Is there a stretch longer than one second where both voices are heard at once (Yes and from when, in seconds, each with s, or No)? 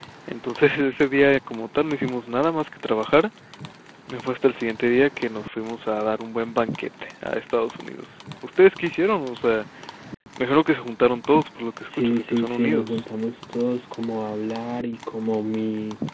Yes, from 11.8 s